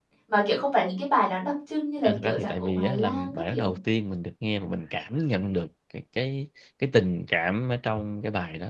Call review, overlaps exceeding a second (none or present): present